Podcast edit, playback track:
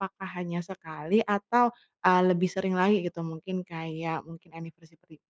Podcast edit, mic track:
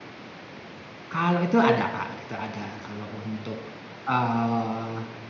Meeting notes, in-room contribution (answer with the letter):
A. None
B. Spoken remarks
B